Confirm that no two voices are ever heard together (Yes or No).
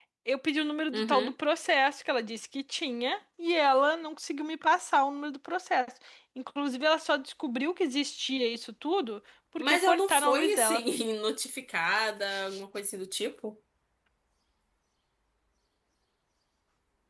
No